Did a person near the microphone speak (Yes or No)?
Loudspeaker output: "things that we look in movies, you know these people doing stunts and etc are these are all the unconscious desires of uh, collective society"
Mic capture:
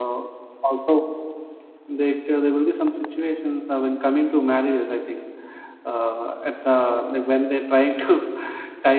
Yes